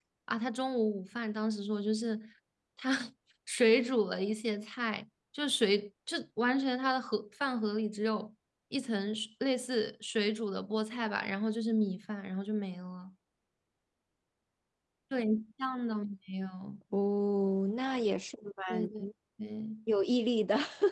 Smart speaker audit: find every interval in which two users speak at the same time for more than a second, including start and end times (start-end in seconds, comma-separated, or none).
none